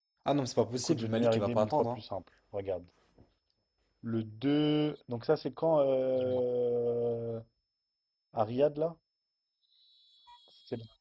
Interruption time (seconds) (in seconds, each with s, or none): 0.8 s